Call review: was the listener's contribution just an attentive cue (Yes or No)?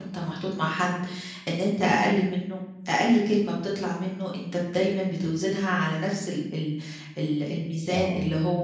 Yes